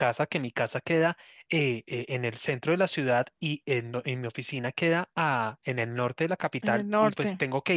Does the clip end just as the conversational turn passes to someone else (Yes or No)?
No